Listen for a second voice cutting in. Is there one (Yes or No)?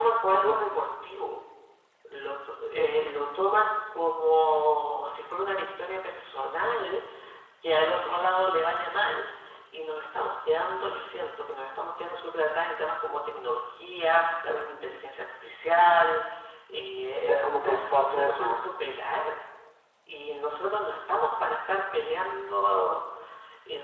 Yes